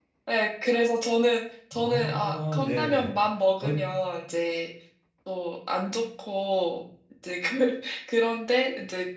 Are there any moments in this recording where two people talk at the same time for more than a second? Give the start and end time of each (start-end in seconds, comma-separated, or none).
1.8-3.1